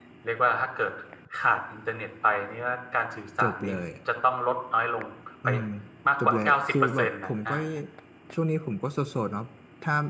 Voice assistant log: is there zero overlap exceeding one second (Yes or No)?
No